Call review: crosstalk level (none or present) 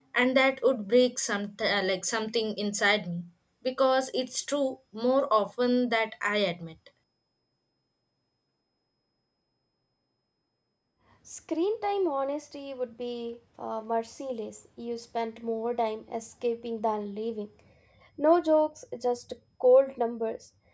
none